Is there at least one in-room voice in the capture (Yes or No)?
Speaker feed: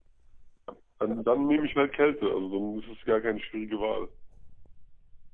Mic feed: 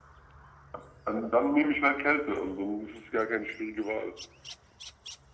No